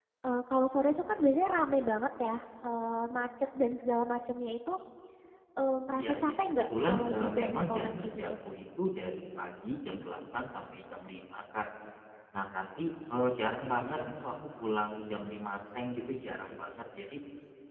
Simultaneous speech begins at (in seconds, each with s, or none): 6.0 s